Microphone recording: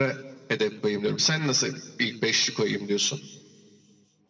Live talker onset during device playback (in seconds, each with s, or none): none